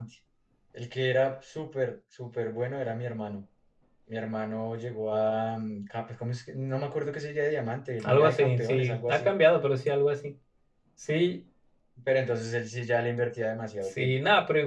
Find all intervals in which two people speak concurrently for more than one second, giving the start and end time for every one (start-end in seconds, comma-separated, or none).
8.0-9.3